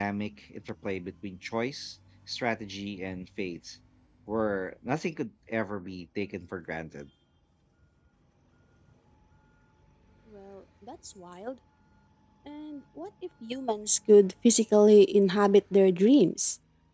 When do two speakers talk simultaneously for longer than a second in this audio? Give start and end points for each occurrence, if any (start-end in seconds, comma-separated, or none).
none